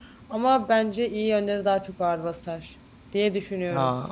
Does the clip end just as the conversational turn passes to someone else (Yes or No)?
Yes